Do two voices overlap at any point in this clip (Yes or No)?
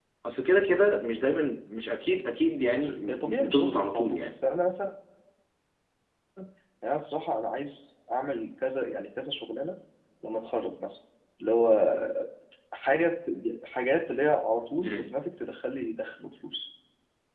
Yes